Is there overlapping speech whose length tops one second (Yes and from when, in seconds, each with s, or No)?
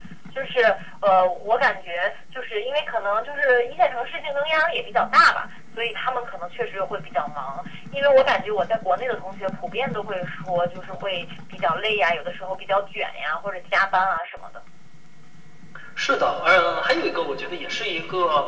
No